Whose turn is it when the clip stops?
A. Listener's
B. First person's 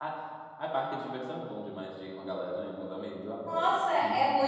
A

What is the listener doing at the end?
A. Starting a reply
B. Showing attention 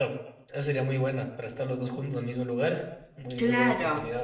A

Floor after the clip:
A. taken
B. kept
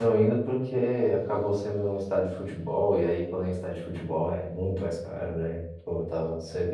B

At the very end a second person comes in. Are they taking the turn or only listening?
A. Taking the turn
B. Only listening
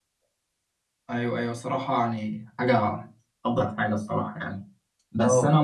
B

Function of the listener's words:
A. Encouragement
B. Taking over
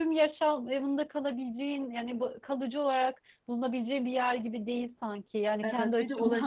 B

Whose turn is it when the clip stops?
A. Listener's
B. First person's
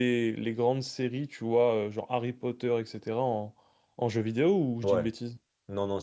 A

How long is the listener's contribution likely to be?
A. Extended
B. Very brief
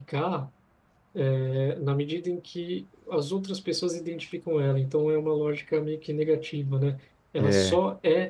B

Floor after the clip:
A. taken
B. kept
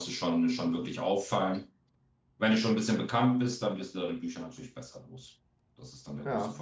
B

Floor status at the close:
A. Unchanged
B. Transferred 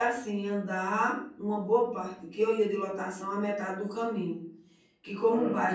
A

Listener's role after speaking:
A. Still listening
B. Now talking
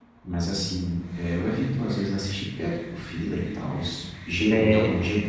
A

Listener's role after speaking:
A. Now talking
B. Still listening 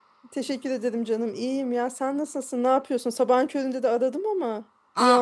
A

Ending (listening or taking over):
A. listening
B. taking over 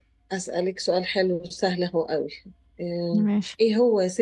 A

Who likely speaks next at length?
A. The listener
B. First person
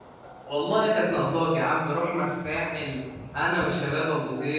B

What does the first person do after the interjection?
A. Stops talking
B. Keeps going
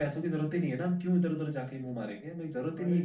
A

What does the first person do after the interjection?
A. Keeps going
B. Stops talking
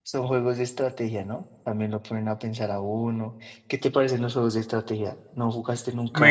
B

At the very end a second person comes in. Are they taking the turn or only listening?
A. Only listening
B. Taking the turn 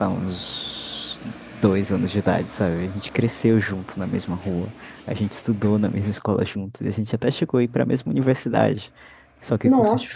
A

